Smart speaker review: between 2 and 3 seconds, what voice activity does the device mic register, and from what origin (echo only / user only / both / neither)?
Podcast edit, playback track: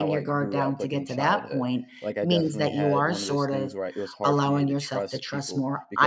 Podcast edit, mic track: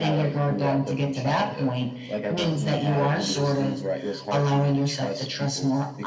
echo only